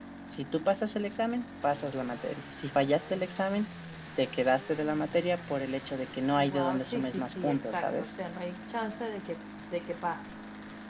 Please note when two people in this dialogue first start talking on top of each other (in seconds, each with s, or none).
6.4 s